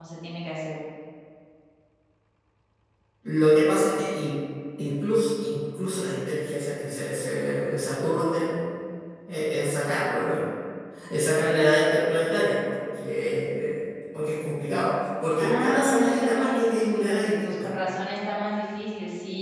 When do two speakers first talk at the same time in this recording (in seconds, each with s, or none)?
15.4 s